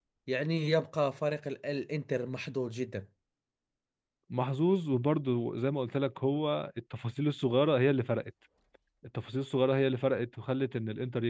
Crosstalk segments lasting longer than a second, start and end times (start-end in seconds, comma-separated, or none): none